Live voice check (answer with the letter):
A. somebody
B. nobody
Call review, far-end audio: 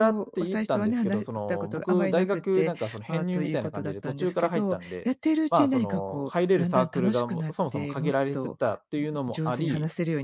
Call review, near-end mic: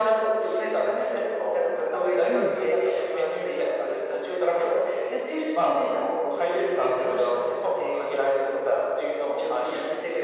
A